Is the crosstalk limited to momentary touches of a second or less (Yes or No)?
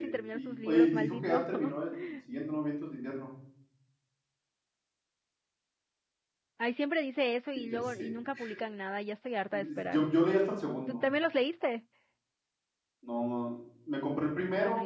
No